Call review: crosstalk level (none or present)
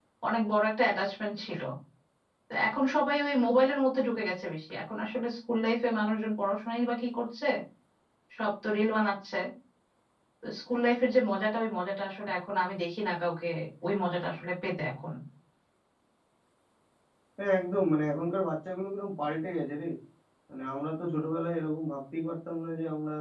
none